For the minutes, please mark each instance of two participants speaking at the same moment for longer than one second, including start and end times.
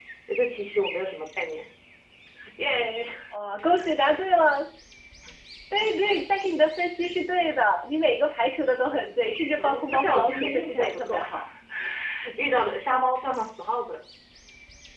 9.6-11.2

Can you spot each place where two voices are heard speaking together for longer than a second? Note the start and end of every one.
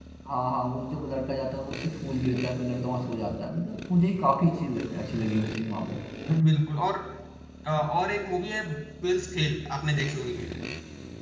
none

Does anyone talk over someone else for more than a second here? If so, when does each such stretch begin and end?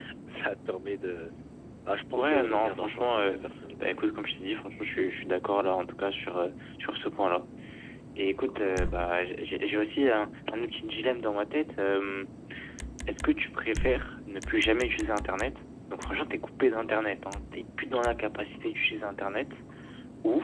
2.2-3.4

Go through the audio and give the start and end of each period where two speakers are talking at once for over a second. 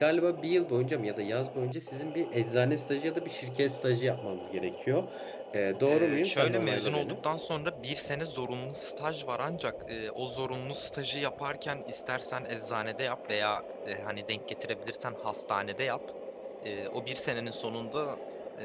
5.9-7.2

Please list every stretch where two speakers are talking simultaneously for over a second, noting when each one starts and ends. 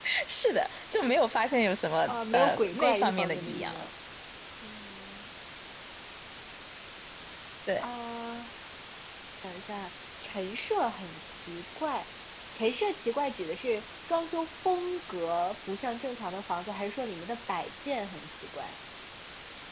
2.1-3.9

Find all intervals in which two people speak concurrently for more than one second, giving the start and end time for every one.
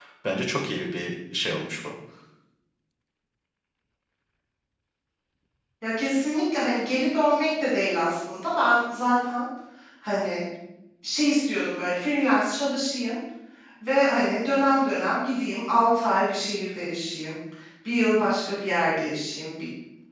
none

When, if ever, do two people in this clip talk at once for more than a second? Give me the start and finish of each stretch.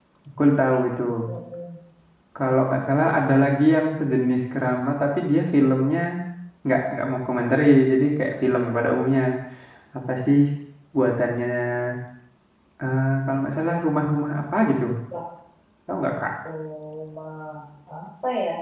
none

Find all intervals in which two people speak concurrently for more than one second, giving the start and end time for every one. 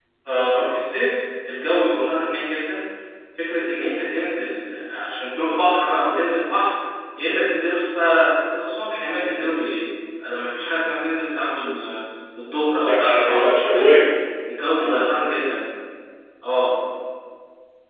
12.9-14.1

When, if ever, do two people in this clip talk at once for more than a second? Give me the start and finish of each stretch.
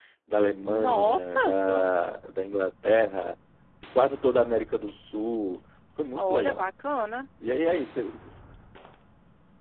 0.7-1.9

